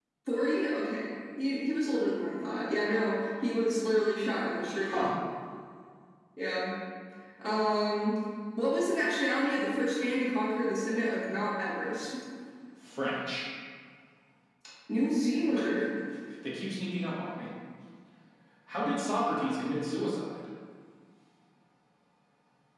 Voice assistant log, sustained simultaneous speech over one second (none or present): none